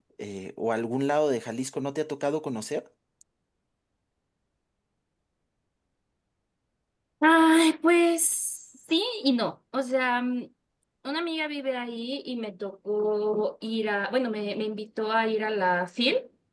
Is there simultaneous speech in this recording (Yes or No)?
No